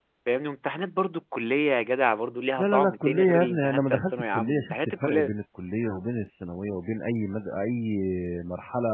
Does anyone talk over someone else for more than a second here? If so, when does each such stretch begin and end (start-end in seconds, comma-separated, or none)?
2.6-5.3